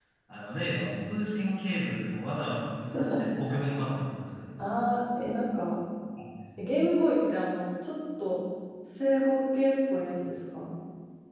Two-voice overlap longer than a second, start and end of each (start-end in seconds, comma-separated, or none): none